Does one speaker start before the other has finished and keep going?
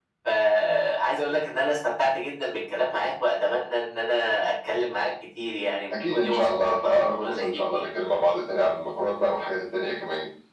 Yes, from 5.9 s

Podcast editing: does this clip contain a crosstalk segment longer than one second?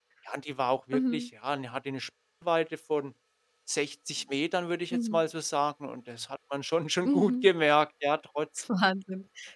No

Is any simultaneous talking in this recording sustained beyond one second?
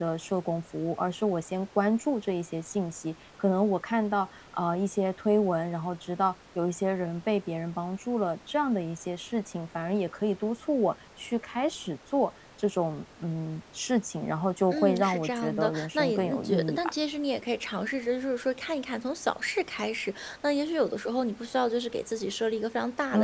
Yes, from 14.7 s

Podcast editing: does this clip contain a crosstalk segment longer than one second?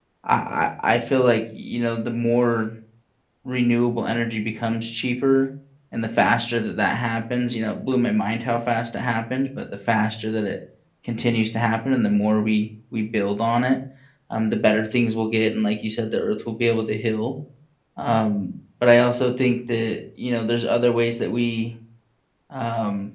No

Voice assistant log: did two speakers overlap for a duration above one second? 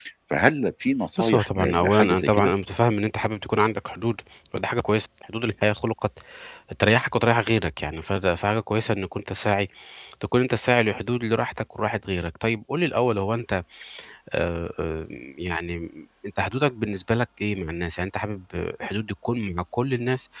Yes, from 1.2 s

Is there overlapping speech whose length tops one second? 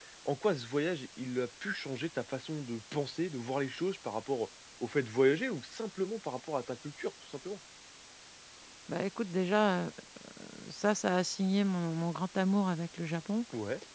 No

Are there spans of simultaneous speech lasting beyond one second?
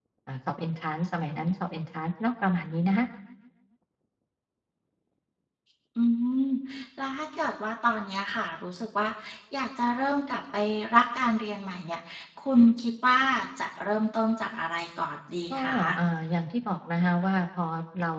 No

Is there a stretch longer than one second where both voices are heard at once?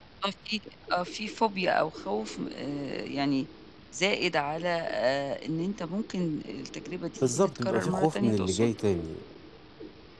Yes, from 7.2 s

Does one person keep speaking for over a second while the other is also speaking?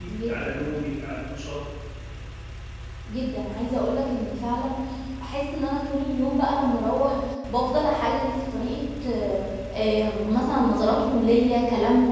No

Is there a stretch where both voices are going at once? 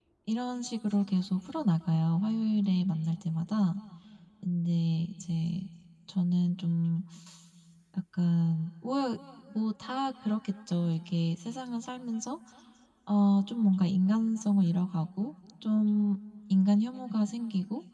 No

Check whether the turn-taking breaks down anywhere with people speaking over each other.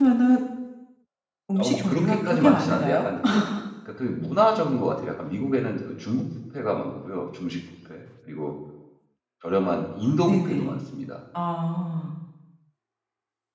Yes, from 1.6 s

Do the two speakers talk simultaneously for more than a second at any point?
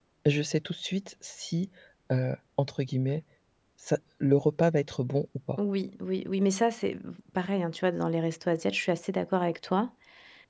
No

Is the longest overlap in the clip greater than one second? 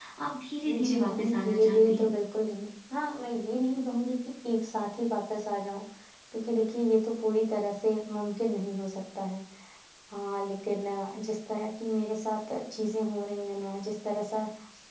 Yes, from 0.9 s

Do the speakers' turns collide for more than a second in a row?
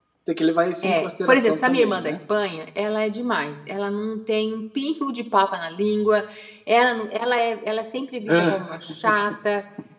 Yes, from 0.8 s

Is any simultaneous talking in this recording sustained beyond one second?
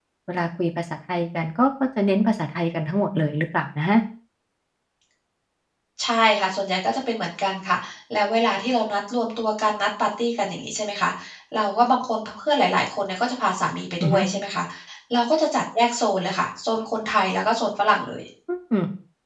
No

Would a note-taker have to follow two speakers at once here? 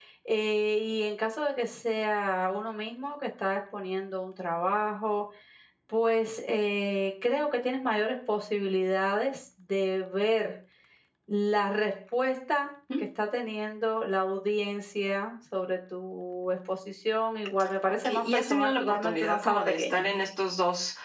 Yes, from 18.0 s

